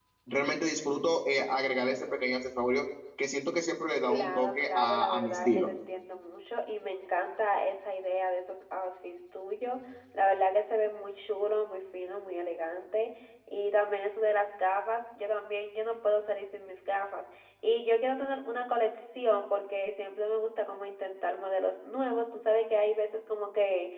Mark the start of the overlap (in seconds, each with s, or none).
4.1 s